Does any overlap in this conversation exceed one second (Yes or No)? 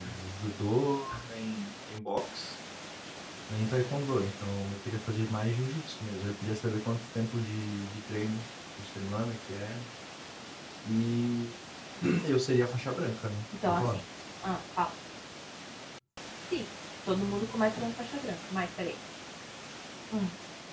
No